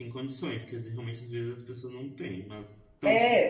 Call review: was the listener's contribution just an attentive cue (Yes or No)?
No